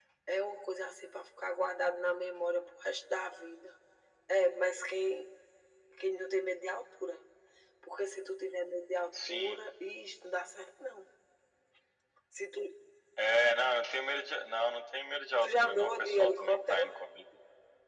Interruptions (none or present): present